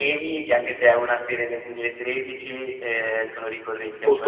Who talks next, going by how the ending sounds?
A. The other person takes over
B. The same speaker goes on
A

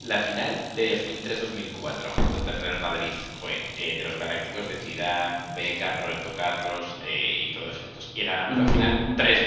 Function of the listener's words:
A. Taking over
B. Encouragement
B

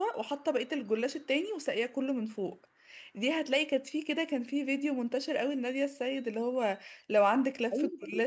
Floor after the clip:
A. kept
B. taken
B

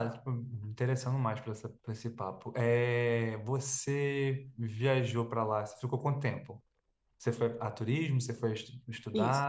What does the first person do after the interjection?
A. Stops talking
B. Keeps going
A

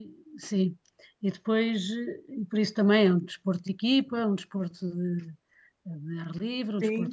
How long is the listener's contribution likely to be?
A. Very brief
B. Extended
B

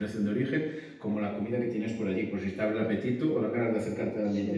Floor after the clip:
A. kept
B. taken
B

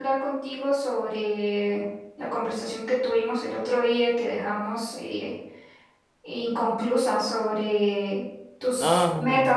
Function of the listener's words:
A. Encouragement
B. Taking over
A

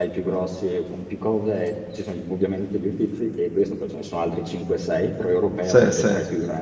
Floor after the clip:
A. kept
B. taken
A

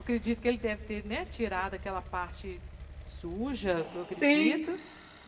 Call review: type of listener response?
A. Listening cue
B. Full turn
A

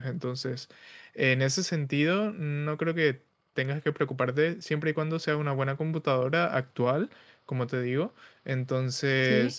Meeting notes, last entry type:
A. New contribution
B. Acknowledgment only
B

